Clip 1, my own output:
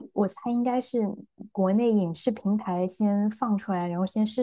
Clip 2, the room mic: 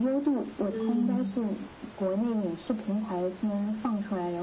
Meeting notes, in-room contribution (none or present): present